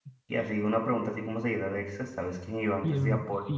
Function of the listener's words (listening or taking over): taking over